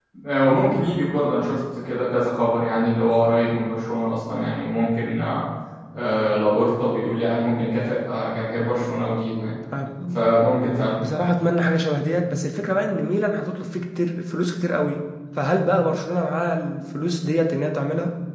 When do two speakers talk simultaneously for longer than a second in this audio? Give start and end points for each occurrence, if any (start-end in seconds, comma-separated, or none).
none